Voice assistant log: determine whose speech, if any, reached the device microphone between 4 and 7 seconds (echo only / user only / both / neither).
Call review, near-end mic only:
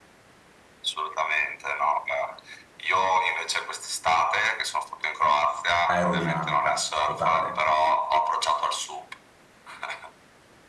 both